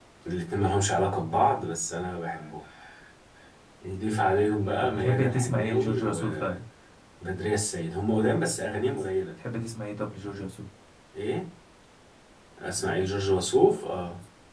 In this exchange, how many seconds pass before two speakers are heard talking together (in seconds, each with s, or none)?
4.8 s